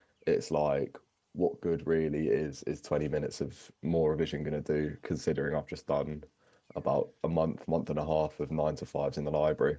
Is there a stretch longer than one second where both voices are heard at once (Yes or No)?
No